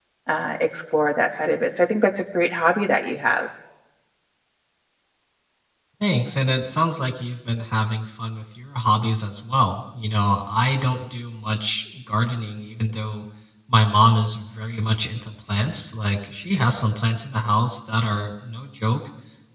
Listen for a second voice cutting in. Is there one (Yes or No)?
No